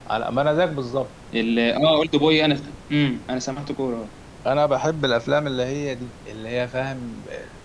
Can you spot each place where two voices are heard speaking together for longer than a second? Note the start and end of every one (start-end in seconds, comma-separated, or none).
none